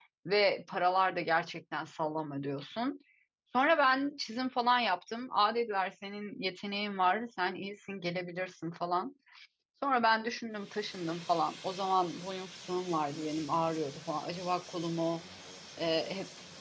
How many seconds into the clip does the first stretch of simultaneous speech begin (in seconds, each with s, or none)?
none